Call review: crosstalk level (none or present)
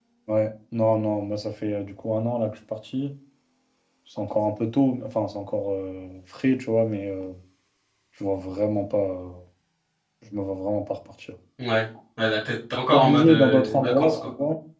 present